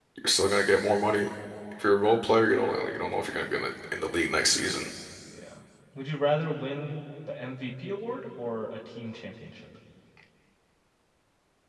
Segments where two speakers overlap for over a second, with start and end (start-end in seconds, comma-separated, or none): none